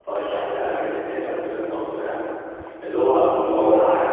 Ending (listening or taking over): listening